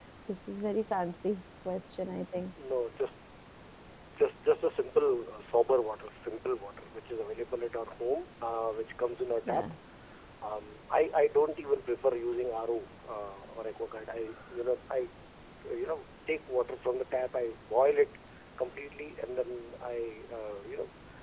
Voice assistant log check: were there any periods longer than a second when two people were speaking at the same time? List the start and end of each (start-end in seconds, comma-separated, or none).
none